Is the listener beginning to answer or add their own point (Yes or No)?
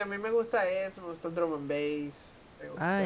Yes